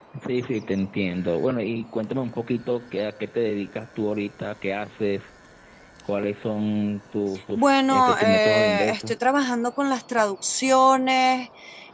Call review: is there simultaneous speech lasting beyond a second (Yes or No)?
Yes